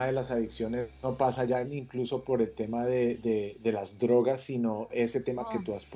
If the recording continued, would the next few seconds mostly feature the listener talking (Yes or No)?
No